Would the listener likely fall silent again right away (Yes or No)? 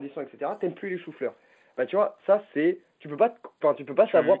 Yes